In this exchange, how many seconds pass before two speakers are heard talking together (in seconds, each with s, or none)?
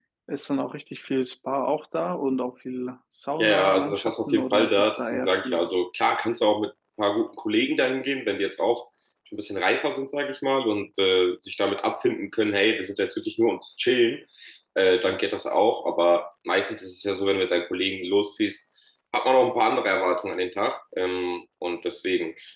3.4 s